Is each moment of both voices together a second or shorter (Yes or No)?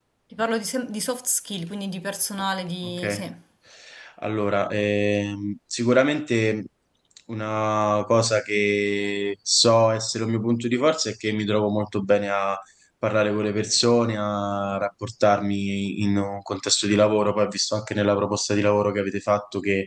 Yes